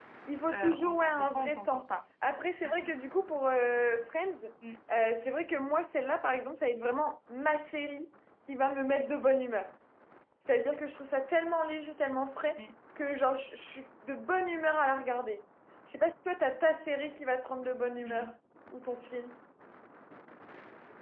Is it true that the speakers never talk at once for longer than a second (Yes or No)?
No